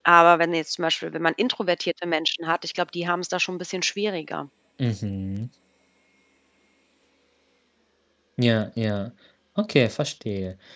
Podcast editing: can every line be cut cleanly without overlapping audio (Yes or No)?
Yes